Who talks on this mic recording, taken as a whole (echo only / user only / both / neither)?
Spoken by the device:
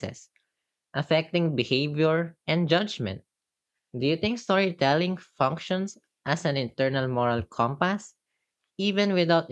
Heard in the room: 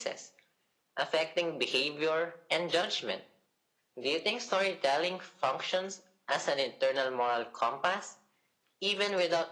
echo only